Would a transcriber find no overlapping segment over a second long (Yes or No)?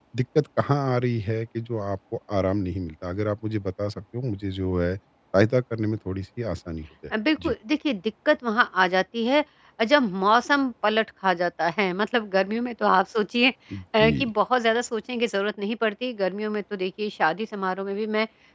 Yes